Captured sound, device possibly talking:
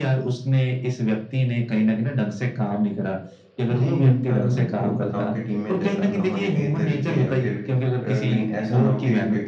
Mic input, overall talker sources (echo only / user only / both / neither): both